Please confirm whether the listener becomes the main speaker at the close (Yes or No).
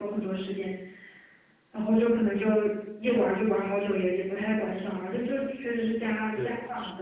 Yes